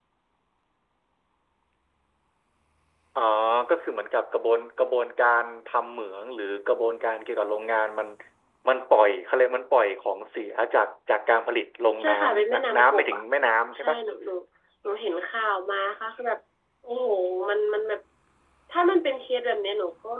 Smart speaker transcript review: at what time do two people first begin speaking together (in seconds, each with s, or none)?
12.0 s